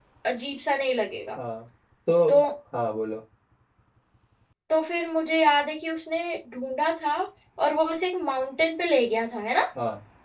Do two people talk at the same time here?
No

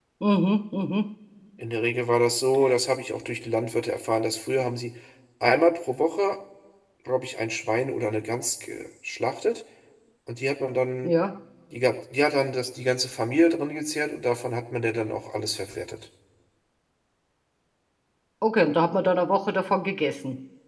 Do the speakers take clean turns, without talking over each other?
Yes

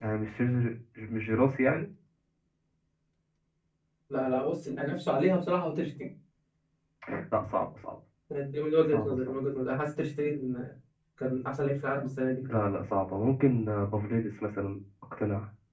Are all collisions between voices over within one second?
Yes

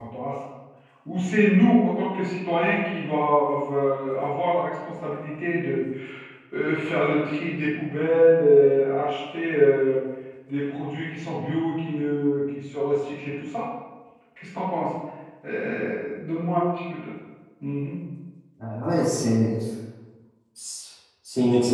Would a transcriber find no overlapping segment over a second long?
Yes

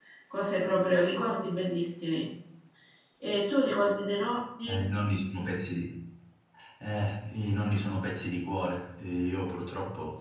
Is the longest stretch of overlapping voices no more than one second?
Yes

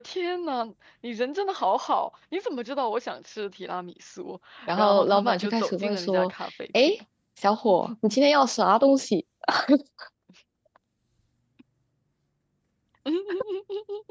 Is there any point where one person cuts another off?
Yes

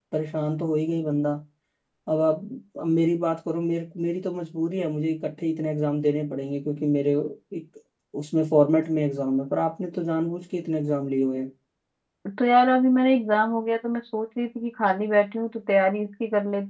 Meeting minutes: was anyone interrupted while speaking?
No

